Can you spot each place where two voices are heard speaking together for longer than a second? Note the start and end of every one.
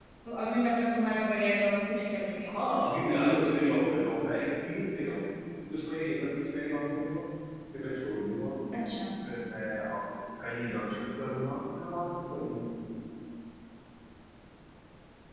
none

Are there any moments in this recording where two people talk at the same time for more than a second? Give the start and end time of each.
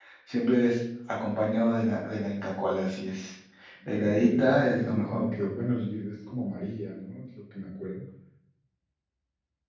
3.9-5.2

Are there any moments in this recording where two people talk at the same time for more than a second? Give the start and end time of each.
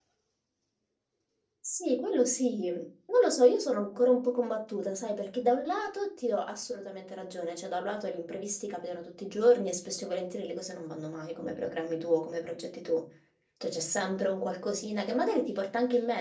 none

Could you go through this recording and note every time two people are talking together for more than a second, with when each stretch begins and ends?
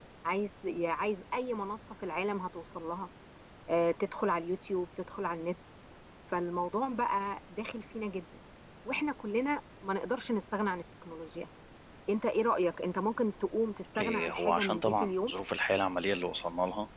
14.0-15.3

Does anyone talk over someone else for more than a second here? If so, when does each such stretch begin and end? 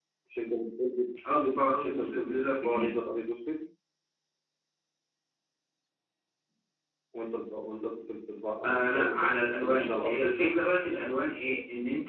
1.7-2.9, 8.6-10.6

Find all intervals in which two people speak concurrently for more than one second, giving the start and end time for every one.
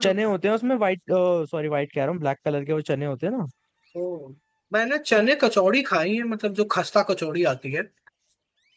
none

